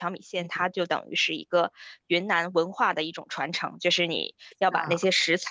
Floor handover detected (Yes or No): No